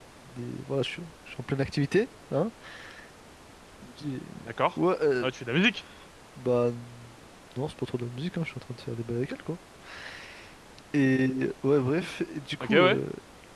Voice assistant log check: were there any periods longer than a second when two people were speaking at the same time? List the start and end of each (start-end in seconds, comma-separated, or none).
none